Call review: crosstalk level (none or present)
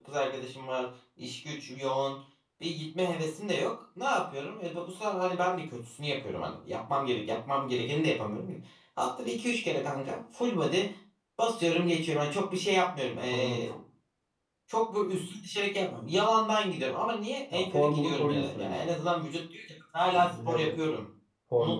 present